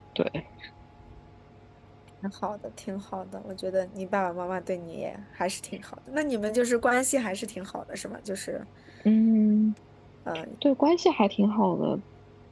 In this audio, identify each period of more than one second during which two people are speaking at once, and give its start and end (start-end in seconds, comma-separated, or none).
none